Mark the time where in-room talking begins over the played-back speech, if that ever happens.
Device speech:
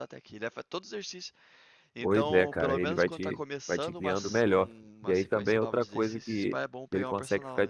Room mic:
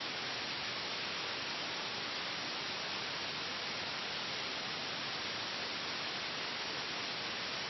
none

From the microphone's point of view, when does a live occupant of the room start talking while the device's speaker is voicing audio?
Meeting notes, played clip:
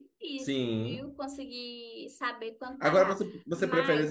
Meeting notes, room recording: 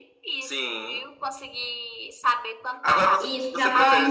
3.2 s

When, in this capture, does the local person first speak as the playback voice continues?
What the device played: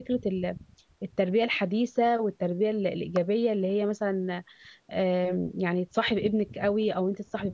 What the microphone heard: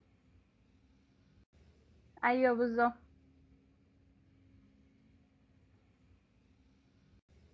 2.2 s

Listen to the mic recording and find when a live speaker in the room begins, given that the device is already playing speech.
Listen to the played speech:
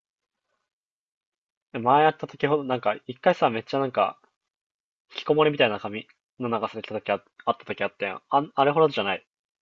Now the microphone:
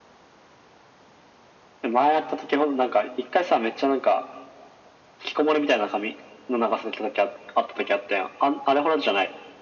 none

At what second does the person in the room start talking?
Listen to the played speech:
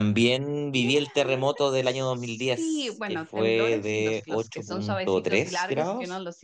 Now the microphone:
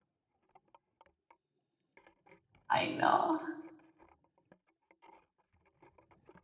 2.7 s

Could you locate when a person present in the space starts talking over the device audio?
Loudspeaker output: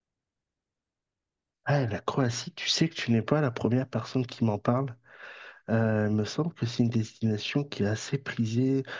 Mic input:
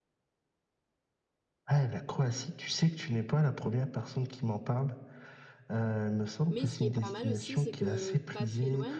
6.5 s

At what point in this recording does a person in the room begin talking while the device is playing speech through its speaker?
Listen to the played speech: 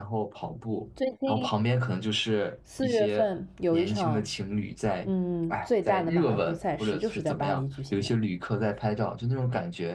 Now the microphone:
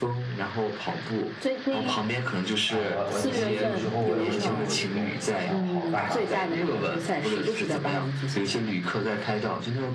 2.6 s

